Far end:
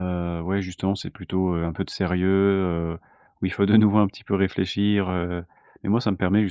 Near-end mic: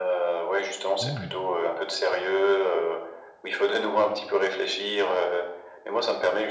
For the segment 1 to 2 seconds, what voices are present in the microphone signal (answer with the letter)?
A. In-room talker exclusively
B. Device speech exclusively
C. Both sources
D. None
C